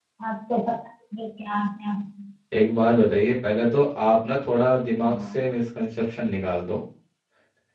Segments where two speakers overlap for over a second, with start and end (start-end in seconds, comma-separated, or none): none